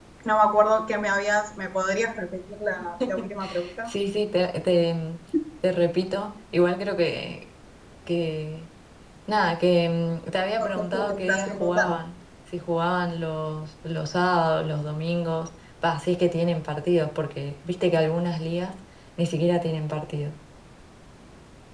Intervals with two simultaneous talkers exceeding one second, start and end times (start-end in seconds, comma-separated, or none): 10.6-12.0